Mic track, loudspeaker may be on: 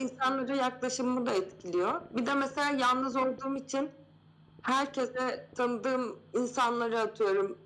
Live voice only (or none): none